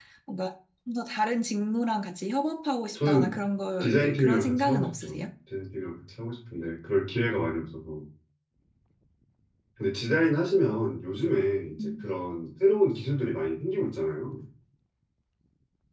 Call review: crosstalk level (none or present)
present